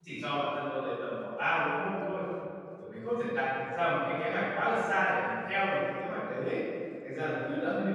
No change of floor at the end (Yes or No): Yes